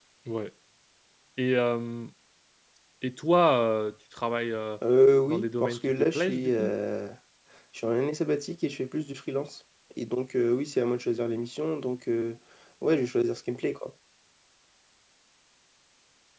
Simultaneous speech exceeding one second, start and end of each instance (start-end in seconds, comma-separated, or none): 5.3-6.7